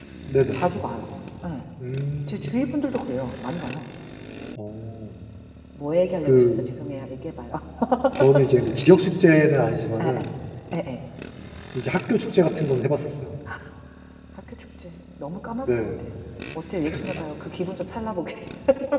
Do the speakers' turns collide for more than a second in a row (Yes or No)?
No